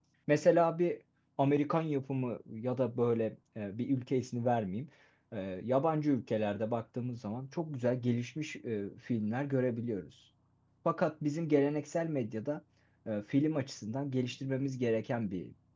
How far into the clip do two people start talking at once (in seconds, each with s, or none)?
none